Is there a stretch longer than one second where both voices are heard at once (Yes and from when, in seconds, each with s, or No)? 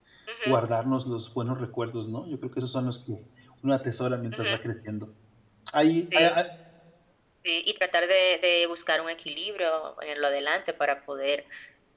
No